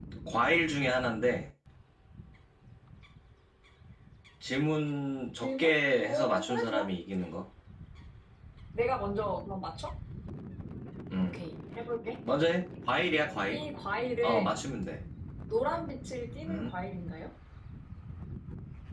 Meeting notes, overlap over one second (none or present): present